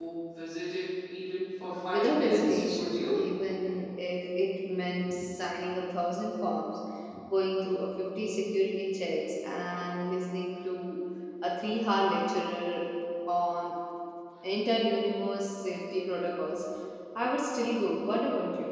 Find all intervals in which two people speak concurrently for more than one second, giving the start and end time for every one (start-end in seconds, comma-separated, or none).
1.6-3.3